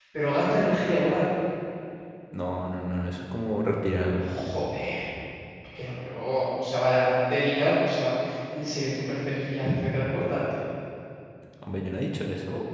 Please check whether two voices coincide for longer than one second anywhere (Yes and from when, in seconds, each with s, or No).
No